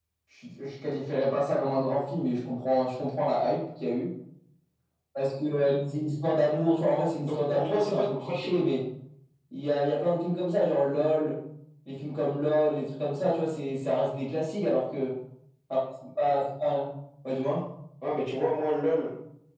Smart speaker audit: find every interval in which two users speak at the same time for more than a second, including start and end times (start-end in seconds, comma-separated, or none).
7.2-8.5